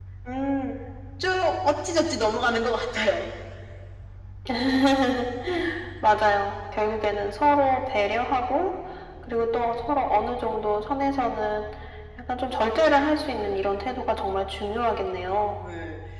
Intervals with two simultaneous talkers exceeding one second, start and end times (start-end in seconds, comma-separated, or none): none